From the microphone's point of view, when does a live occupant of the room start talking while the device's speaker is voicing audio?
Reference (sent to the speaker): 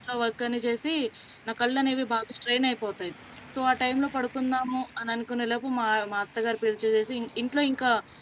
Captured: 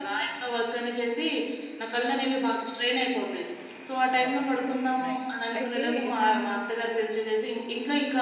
4.2 s

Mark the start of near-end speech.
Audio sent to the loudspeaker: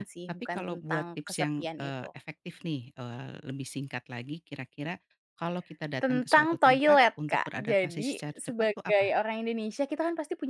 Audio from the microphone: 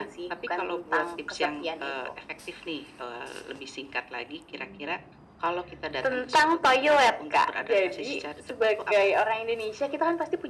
none

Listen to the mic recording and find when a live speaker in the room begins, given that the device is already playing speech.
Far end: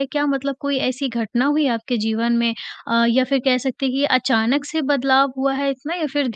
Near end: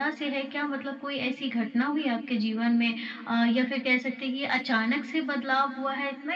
none

